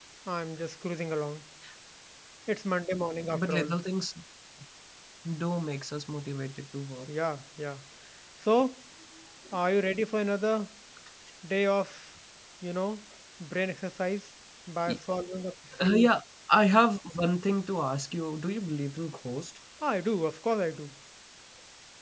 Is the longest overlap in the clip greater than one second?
No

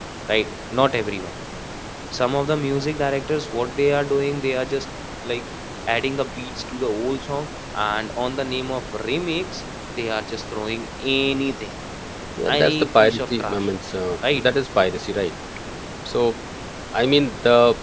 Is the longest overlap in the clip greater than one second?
Yes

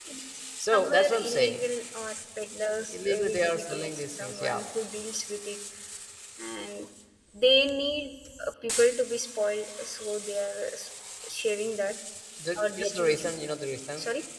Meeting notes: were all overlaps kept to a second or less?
No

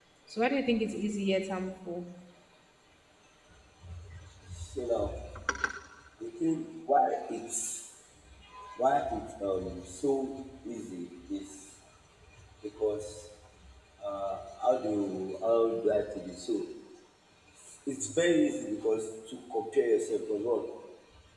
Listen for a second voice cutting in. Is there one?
No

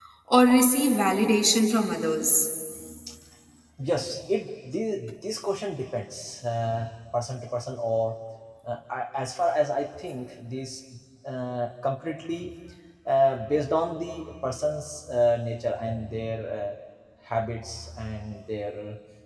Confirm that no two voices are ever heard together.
Yes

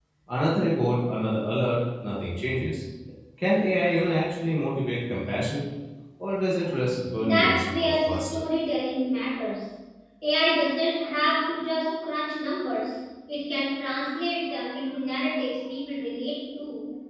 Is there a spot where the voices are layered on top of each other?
Yes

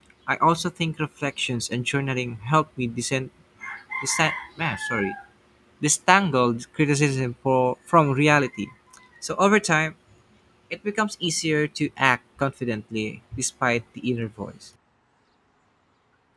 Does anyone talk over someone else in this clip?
No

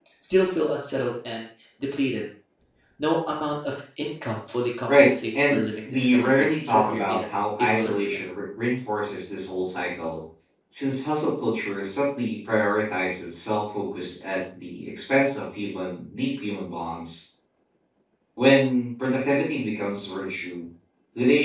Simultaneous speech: Yes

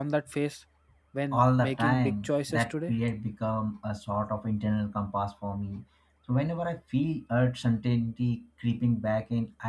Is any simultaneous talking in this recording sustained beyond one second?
Yes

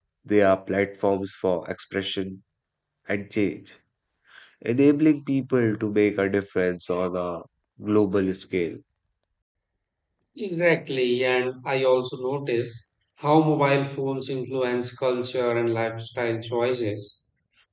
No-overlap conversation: Yes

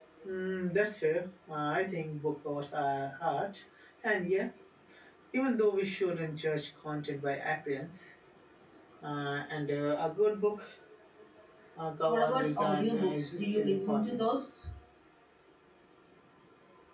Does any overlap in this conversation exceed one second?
Yes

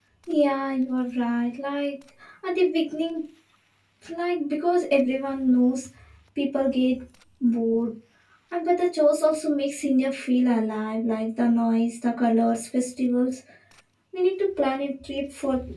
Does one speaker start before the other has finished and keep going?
No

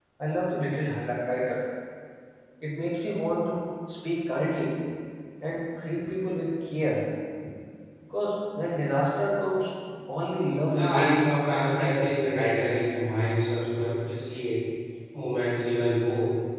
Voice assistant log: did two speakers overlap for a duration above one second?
Yes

